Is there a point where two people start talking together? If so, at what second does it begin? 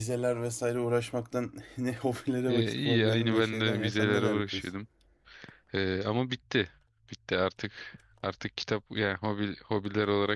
2.5 s

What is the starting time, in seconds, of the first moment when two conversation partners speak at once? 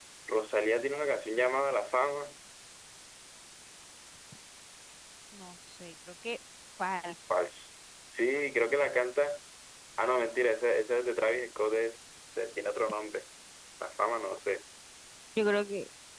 none

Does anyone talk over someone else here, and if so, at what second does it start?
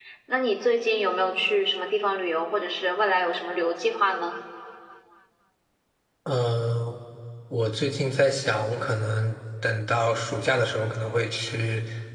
none

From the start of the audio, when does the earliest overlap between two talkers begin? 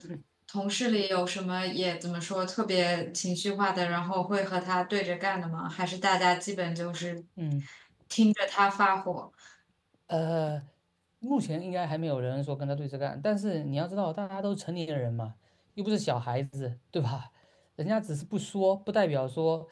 none

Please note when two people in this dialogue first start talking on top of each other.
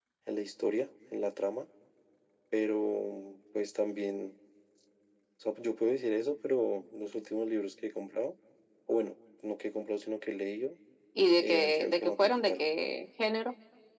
11.4 s

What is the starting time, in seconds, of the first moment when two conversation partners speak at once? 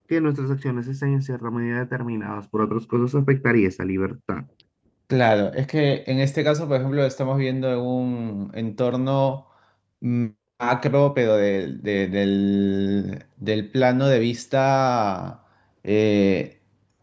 none

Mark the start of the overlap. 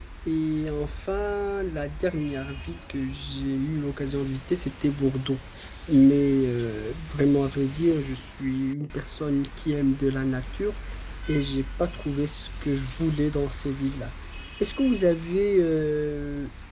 none

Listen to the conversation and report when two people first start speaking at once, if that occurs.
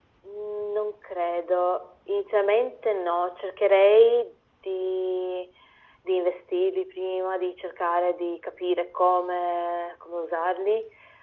none

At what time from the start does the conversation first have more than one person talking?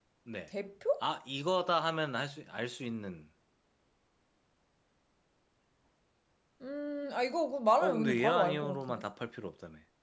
7.8 s

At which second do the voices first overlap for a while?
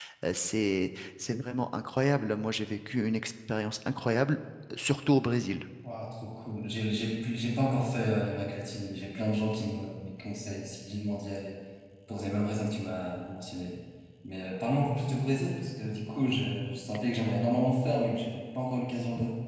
none

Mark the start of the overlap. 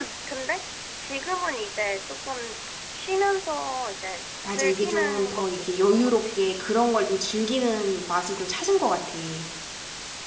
4.4 s

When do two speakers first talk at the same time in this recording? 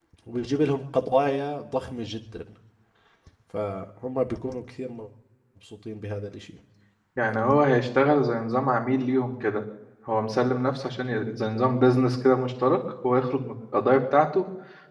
none

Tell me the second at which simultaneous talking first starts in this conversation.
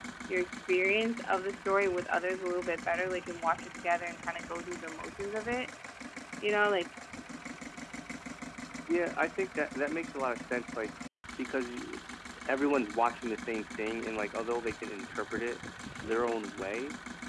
none

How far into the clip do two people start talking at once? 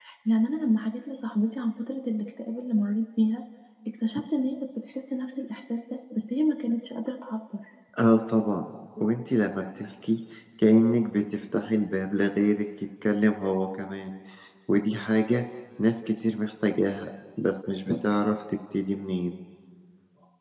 none

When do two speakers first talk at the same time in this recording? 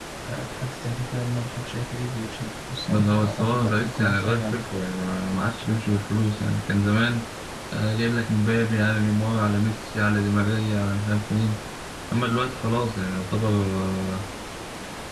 2.9 s

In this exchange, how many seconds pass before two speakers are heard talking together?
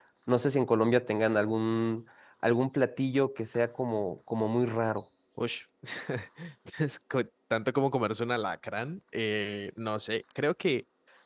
none

